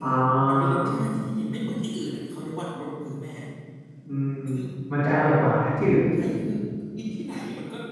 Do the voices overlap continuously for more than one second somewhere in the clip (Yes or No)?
No